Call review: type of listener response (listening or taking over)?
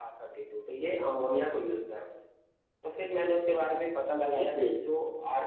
listening